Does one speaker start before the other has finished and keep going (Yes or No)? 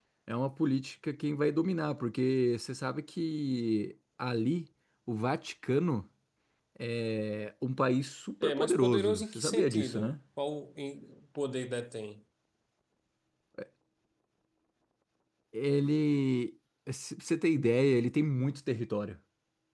Yes